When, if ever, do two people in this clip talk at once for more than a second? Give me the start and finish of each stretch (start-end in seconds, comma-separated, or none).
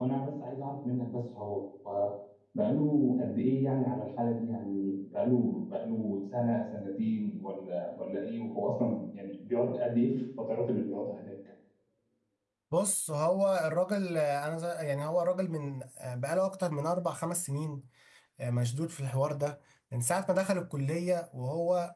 none